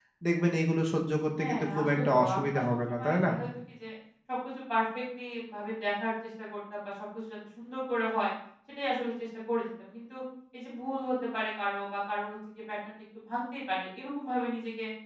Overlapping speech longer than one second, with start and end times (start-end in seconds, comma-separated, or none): 1.4-3.3